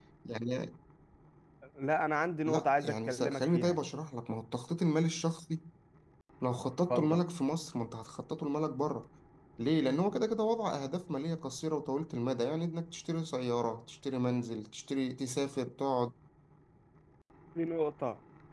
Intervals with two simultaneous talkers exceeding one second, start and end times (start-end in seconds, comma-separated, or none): 2.5-3.8